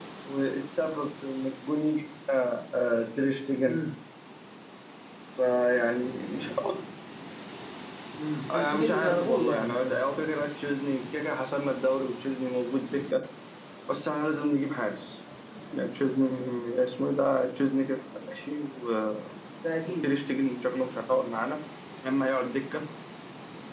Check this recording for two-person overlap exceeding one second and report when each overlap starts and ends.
8.5-10.0

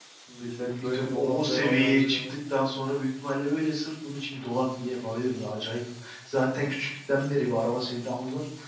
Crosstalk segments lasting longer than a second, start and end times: 0.8-2.4

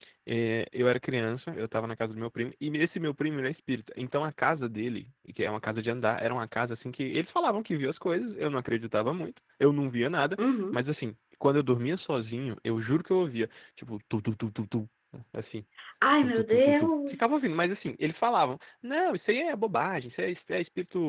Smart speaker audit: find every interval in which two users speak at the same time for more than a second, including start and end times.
16.2-17.4

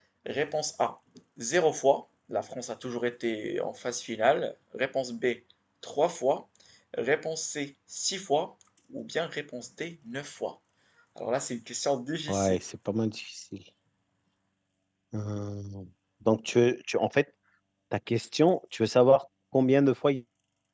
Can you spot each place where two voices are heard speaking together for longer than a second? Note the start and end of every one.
none

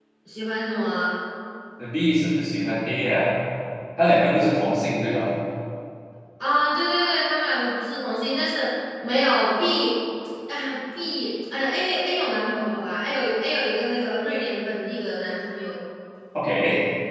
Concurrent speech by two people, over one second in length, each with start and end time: none

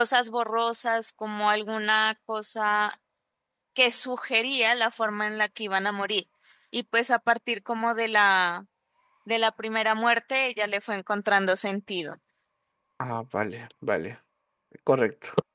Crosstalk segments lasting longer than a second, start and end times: none

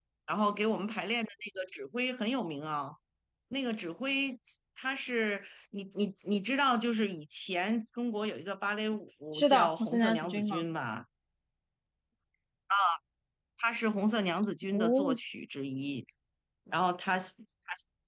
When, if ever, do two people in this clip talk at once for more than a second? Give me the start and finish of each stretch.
9.3-10.7

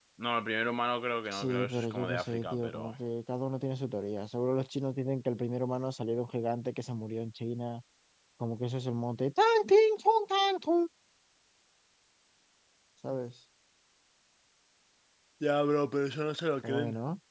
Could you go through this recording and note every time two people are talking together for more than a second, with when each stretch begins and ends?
1.3-2.9

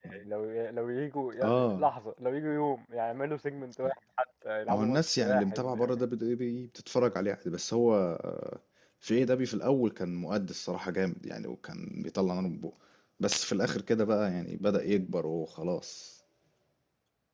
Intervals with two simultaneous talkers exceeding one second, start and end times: 4.7-5.9

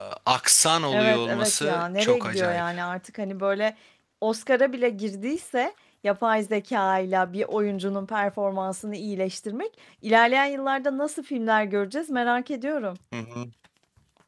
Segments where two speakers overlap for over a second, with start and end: 0.9-2.6

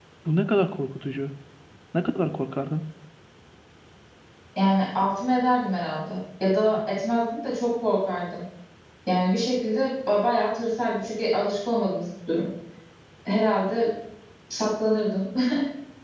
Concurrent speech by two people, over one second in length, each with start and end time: none

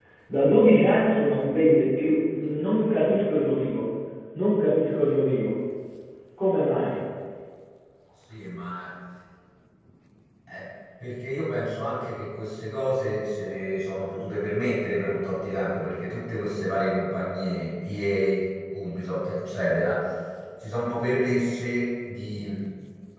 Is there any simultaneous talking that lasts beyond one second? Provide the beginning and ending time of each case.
none

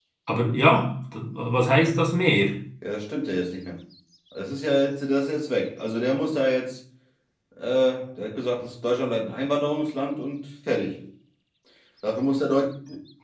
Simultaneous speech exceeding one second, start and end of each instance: none

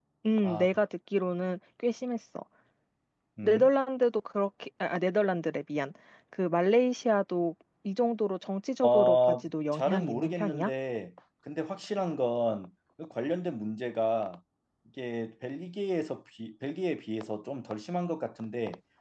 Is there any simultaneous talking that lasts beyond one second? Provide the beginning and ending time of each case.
8.8-10.7

